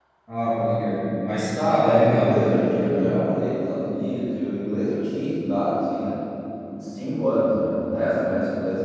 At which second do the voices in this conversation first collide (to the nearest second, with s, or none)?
2 s